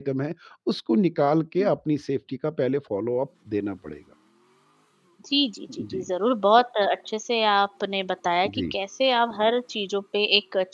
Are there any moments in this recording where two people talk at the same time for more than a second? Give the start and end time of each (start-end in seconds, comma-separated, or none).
none